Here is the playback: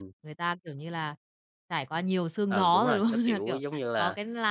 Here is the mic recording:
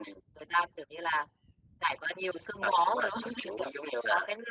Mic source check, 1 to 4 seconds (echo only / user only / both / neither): echo only